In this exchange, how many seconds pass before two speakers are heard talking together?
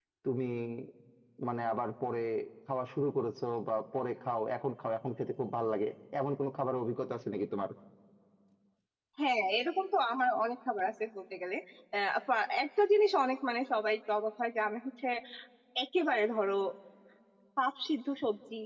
none

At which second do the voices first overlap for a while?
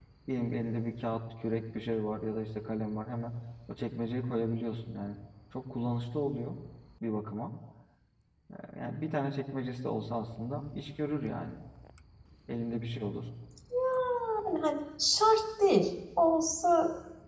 none

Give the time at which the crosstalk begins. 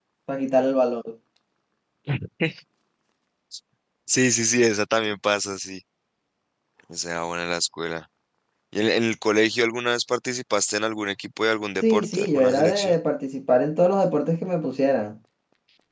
12 s

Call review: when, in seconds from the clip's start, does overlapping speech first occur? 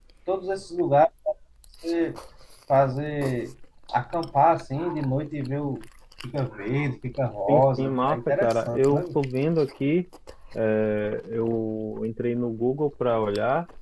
7 s

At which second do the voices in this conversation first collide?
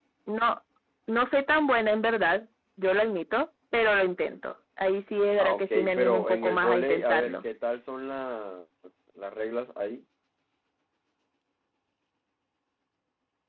5 s

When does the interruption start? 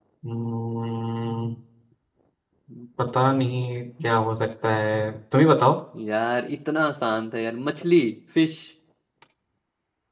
none

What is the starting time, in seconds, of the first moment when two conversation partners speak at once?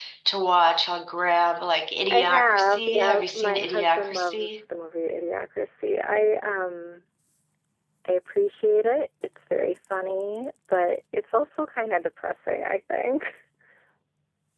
2 s

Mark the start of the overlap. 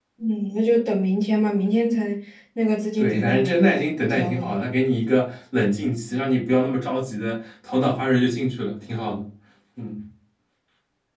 3 s

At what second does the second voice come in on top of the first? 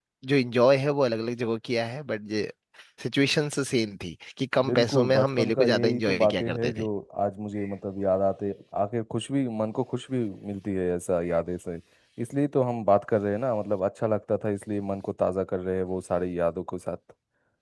5 s

